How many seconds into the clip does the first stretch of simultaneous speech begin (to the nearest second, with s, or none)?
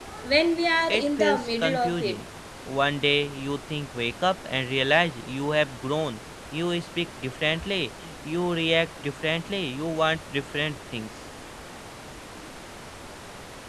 1 s